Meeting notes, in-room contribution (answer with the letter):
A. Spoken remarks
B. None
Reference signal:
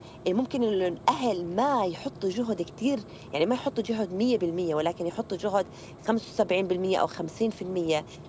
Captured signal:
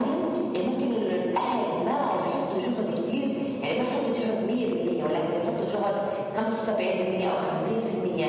B